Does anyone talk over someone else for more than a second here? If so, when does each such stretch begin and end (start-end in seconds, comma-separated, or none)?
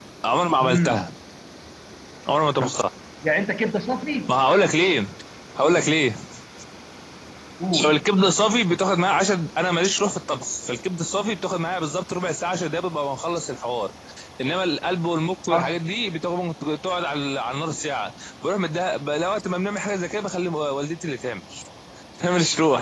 none